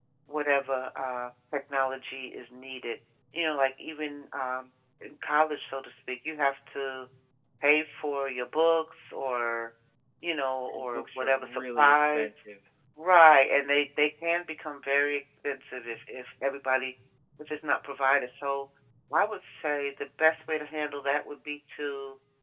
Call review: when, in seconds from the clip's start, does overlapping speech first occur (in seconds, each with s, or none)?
10.7 s